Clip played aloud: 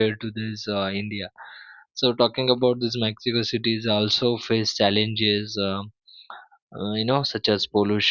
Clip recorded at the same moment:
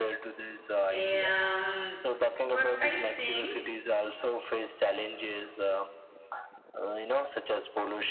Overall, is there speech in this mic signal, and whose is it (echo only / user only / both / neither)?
both